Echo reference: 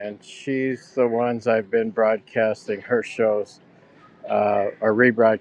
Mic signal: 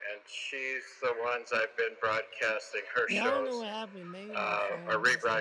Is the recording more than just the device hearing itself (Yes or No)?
Yes